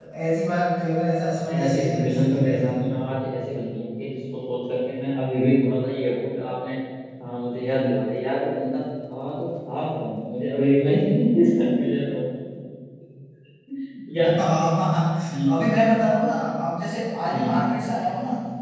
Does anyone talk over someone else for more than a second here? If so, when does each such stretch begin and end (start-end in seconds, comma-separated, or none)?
1.5-3.0